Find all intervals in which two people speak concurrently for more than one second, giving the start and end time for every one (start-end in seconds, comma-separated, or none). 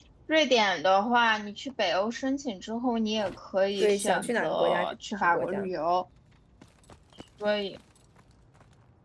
3.8-5.7